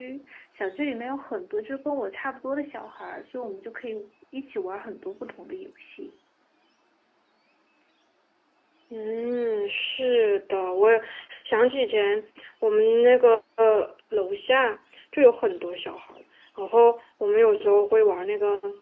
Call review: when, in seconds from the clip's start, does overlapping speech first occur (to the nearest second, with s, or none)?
none